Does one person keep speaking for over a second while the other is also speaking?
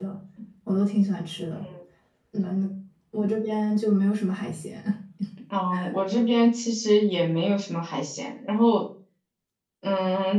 No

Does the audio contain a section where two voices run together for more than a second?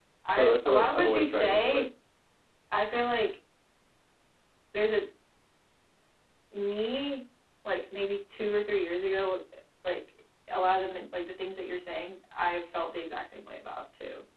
Yes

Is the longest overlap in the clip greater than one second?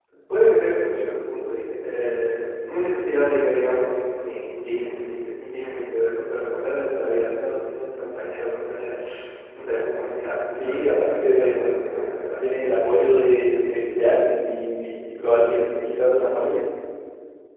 Yes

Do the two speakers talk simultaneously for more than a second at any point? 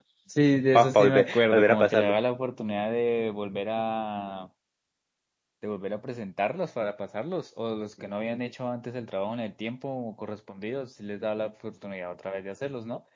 Yes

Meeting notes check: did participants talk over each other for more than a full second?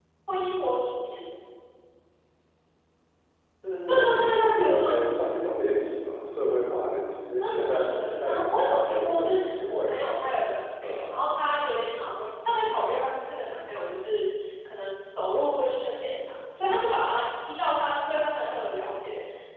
Yes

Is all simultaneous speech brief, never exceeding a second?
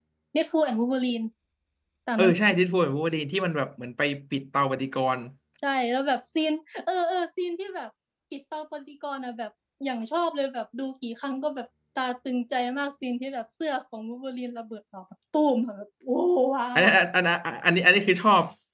Yes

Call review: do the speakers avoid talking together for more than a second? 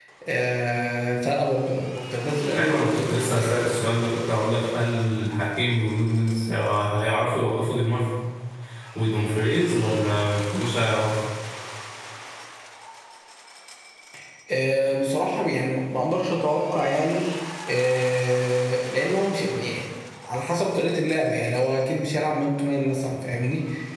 No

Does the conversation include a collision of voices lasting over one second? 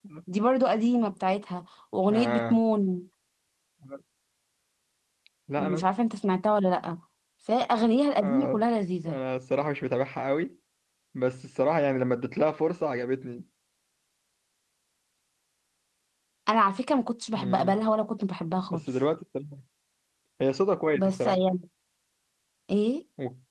No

